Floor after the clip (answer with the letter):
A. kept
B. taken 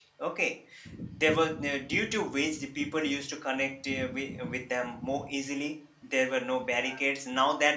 A